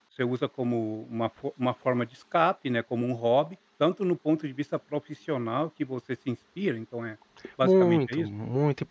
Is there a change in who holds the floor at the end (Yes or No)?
Yes